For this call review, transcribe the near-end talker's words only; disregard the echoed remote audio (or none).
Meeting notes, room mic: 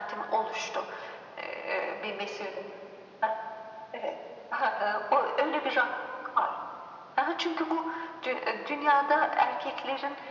none